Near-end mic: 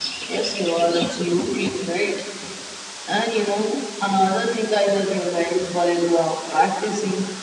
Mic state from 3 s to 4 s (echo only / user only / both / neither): echo only